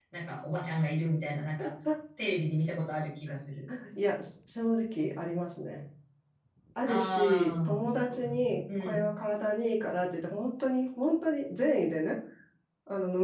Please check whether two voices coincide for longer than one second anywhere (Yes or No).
Yes